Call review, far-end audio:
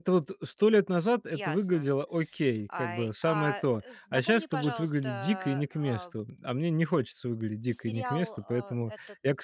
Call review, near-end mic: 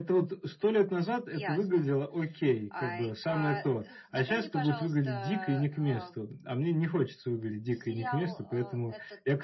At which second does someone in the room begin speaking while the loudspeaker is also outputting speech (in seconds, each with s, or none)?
none